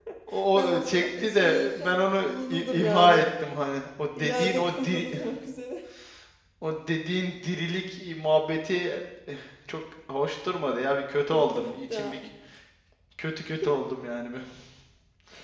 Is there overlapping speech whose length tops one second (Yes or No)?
Yes